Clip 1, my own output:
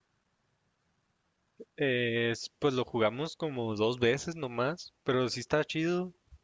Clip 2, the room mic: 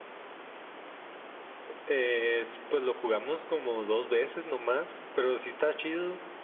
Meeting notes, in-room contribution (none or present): none